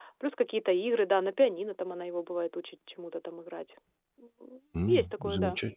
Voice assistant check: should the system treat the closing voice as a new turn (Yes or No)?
Yes